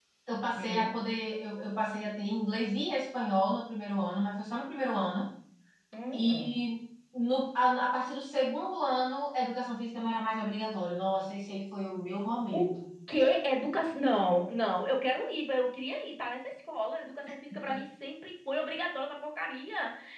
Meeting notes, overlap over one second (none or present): none